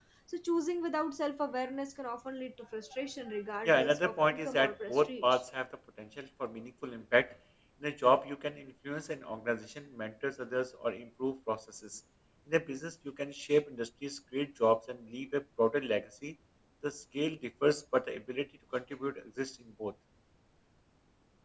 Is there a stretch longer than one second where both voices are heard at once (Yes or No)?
Yes